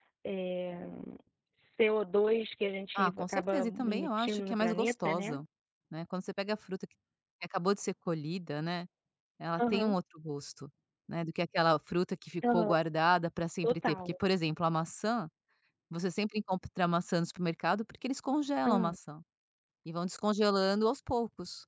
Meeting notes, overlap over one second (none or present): present